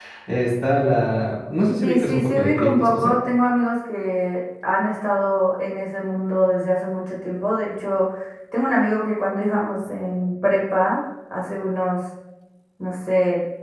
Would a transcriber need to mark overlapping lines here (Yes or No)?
Yes